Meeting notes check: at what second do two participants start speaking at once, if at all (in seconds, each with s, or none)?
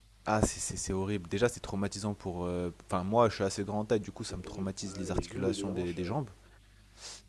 4.2 s